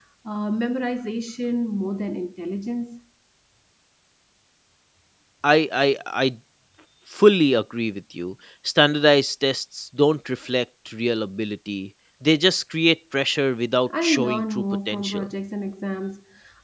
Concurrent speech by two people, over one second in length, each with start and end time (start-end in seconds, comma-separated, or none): 14.0-15.3